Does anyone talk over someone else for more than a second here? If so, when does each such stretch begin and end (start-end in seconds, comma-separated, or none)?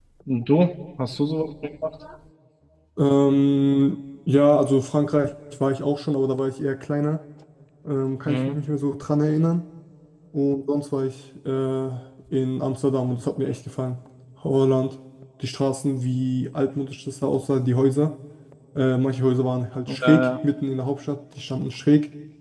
none